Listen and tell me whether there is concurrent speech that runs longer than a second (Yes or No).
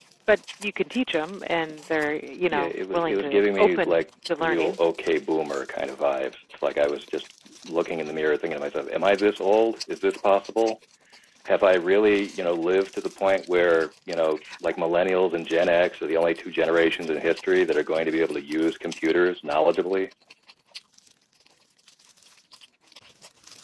Yes